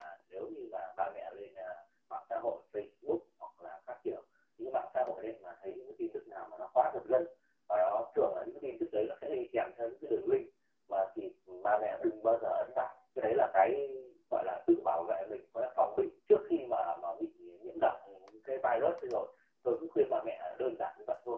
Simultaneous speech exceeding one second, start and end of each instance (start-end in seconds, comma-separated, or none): none